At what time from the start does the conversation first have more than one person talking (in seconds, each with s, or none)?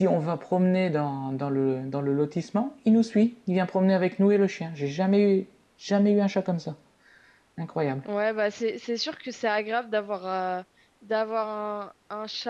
none